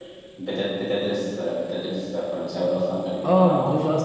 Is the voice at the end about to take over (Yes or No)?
Yes